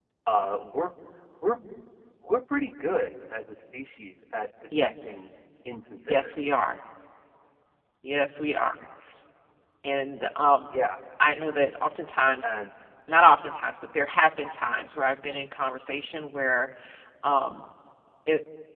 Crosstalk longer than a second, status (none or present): none